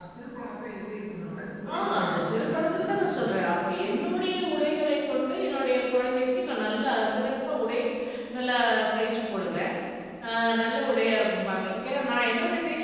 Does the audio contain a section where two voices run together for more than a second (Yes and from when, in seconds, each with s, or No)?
Yes, from 1.6 s